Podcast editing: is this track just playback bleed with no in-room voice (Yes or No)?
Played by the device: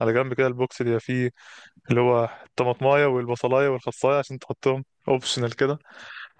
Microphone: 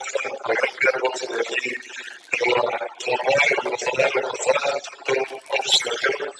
Yes